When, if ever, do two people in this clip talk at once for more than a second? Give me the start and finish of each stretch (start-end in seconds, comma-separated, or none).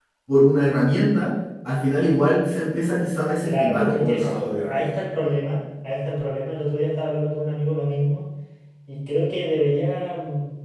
3.4-4.8